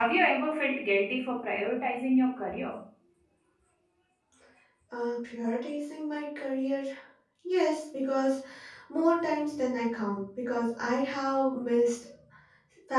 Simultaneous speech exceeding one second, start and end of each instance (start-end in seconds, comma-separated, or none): none